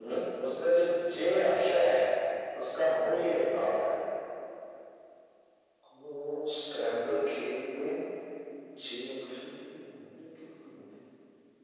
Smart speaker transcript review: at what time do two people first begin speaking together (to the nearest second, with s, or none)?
none